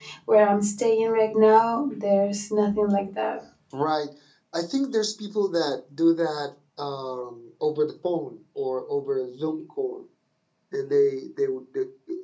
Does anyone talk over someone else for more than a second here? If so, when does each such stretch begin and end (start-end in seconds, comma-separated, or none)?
none